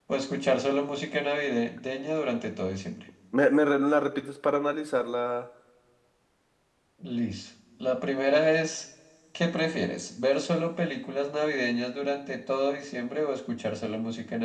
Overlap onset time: none

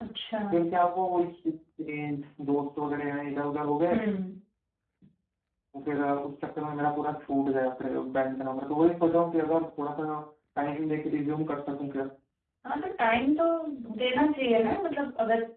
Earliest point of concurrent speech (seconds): none

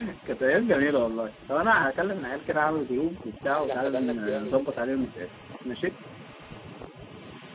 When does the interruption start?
3.5 s

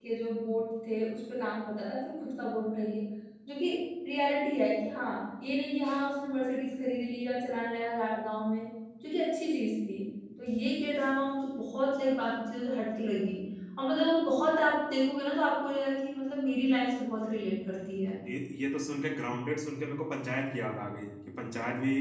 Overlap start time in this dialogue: none

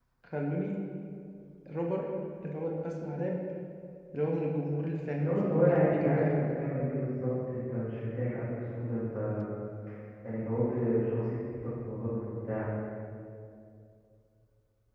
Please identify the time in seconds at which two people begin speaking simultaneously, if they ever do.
5.2 s

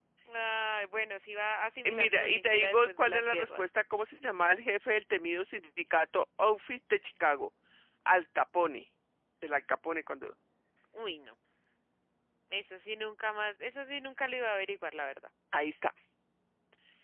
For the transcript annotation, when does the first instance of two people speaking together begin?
1.9 s

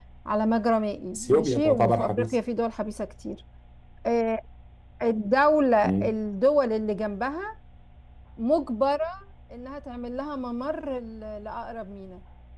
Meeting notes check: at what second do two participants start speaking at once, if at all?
1.1 s

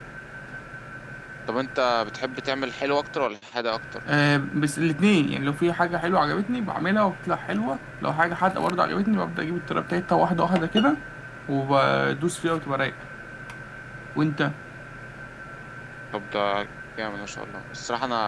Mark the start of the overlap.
none

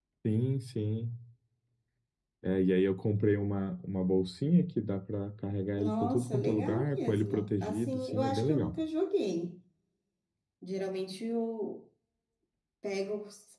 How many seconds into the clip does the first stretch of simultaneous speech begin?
5.8 s

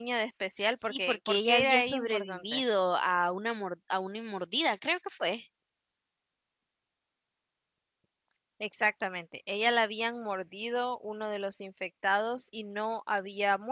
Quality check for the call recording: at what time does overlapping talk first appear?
0.8 s

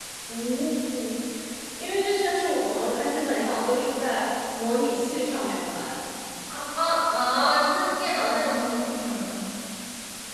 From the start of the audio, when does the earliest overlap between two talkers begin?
none

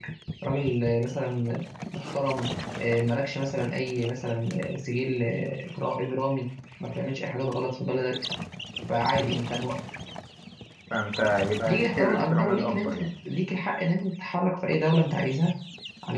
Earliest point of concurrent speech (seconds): 11.7 s

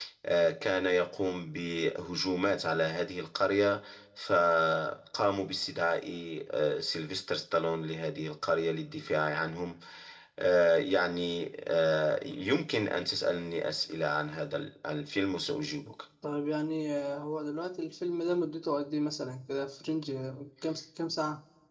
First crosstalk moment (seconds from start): none

